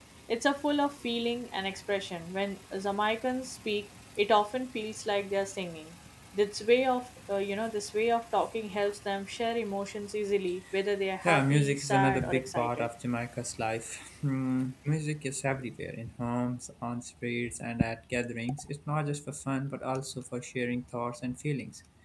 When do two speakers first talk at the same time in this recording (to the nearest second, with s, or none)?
11 s